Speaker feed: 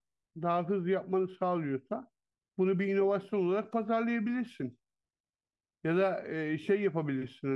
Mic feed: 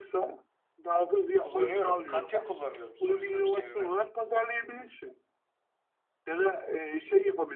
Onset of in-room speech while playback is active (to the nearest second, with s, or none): 1 s